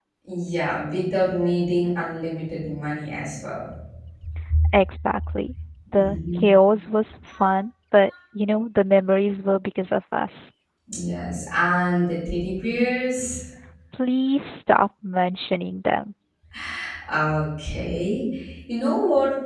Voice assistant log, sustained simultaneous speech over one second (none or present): none